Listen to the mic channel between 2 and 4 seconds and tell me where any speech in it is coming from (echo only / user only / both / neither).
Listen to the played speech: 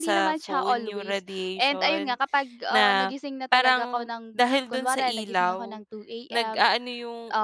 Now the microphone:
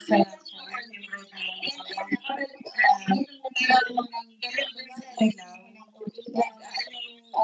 echo only